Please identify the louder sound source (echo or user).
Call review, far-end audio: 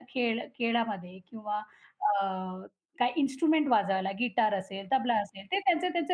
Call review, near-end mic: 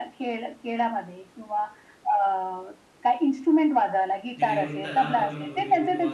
echo